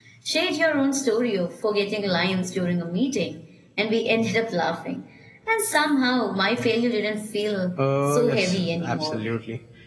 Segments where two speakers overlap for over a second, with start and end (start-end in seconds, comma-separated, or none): 8.1-9.2